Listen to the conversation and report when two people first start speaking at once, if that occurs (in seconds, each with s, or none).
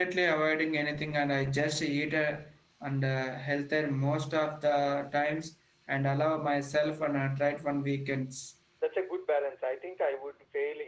none